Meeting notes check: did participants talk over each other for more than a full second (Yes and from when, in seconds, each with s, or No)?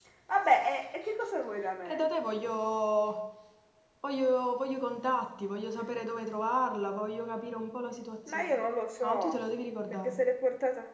No